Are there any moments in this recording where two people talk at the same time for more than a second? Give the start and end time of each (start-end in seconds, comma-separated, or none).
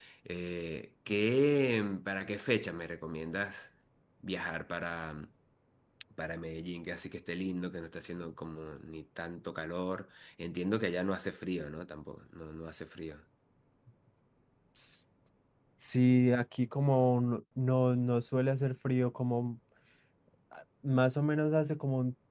none